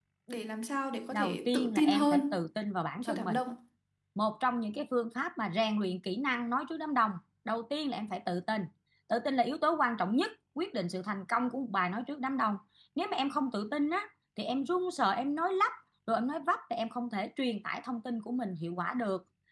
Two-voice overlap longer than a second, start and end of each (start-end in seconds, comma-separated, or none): 1.1-2.4